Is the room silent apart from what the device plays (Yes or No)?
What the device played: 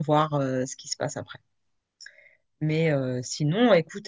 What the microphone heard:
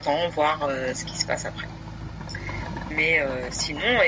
Yes